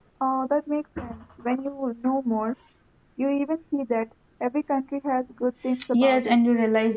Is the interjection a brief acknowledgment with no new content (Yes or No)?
No